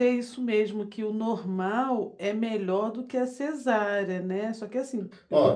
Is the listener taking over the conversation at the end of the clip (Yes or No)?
Yes